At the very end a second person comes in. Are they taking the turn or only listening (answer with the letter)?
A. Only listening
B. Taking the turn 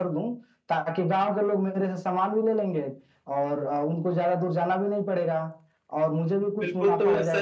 B